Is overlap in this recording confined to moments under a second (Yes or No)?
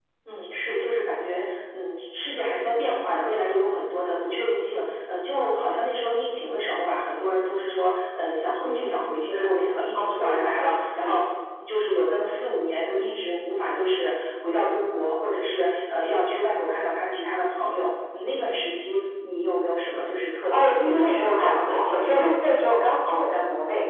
No